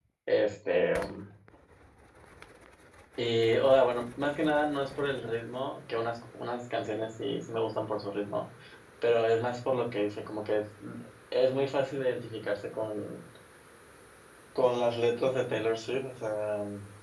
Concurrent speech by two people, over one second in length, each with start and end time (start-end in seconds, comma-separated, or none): none